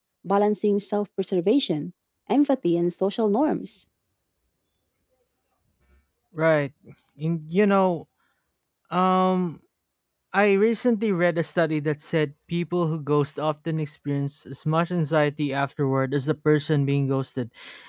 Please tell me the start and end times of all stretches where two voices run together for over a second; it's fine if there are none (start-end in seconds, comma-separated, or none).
none